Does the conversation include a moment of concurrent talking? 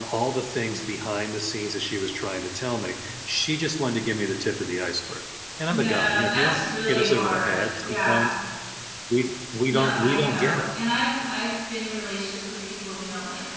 Yes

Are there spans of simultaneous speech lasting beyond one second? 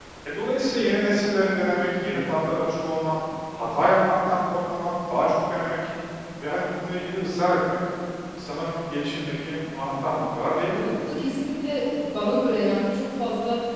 No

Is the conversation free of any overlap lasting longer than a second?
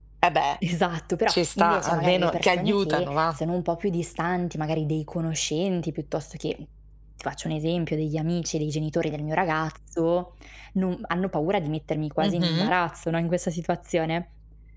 No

